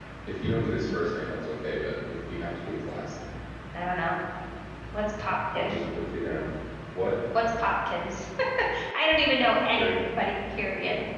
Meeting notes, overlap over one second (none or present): none